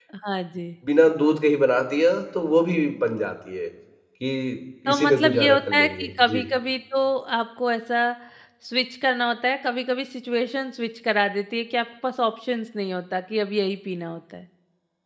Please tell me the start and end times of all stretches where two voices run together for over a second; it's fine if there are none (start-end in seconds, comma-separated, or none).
4.9-6.5